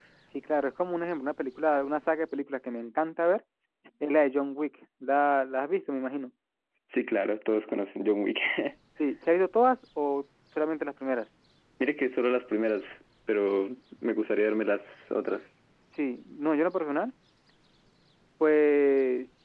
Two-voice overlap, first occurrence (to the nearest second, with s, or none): none